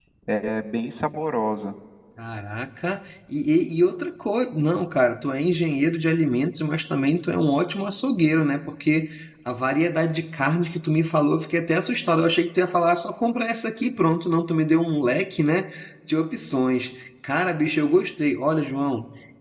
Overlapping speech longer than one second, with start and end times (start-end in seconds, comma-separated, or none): none